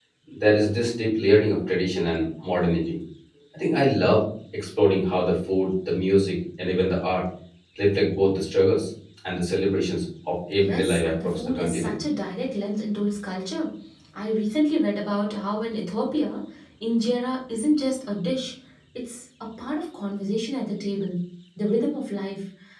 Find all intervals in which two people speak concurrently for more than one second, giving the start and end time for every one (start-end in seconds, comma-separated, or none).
10.6-11.9